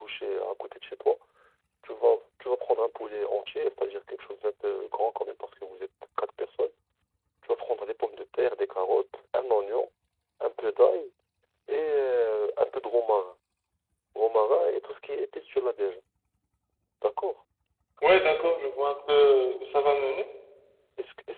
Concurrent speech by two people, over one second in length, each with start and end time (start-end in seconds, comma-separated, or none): none